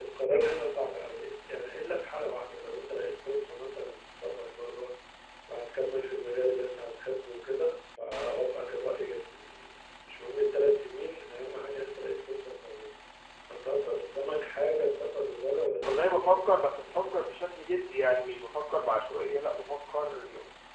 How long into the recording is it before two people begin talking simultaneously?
15.8 s

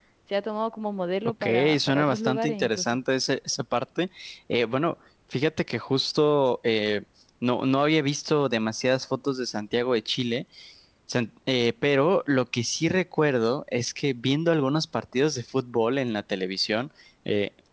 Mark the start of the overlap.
1.4 s

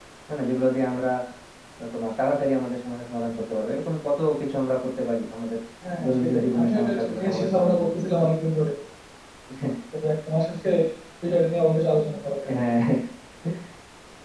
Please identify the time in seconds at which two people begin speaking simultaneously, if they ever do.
6.0 s

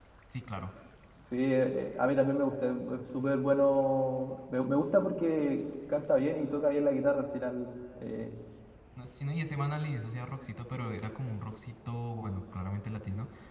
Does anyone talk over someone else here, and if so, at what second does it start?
none

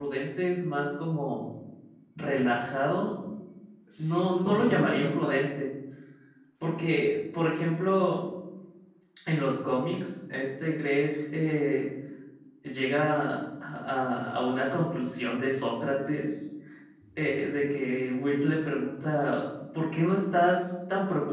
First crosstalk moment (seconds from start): 4.0 s

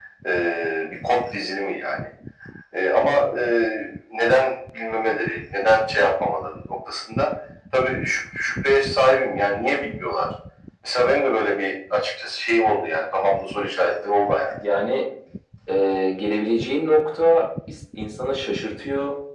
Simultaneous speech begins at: none

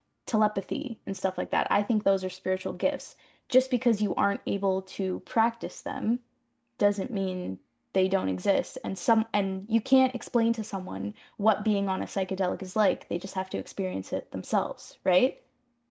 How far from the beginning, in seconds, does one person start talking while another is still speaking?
none

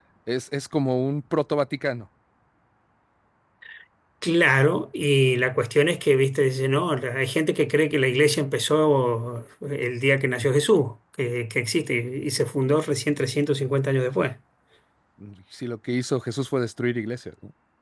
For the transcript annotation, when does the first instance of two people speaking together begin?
none

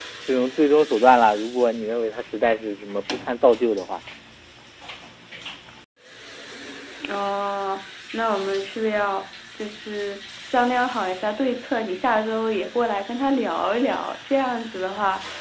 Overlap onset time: none

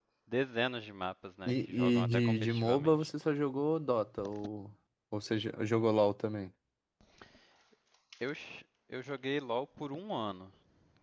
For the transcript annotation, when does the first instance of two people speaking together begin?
1.5 s

